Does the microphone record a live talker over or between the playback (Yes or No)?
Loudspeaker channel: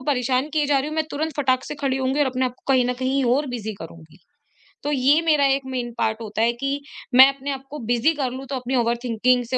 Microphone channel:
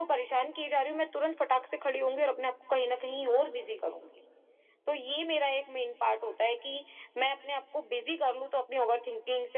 No